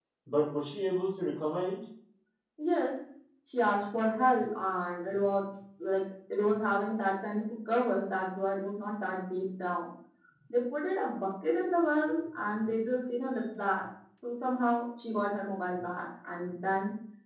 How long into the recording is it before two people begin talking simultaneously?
none

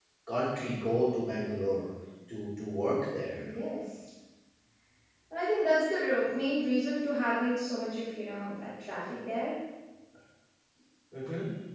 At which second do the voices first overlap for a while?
none

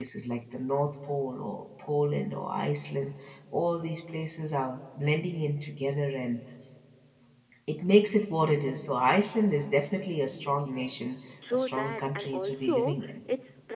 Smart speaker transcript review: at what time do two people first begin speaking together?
11.4 s

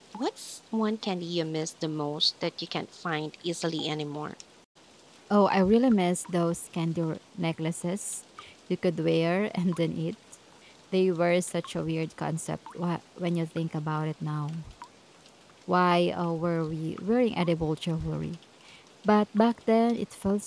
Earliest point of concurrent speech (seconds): none

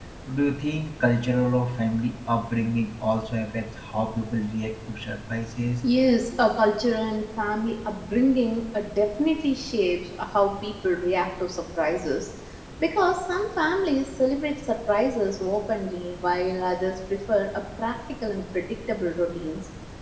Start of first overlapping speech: none

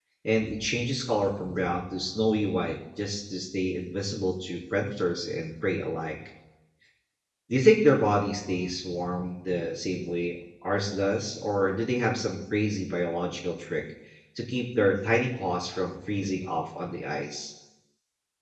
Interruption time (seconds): none

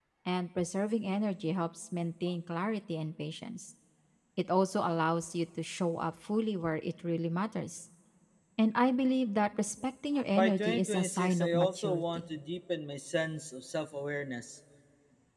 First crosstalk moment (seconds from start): 10.3 s

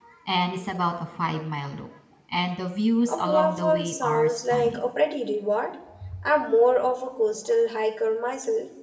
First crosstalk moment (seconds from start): 3.1 s

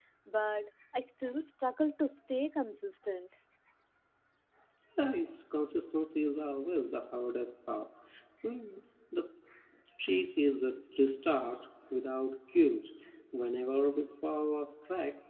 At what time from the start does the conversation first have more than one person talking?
none

